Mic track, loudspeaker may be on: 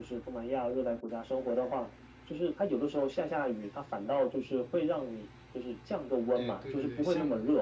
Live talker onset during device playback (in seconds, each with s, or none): 6.3 s